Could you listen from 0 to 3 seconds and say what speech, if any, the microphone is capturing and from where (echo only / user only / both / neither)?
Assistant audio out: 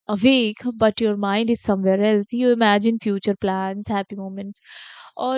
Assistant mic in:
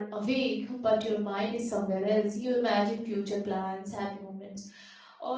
echo only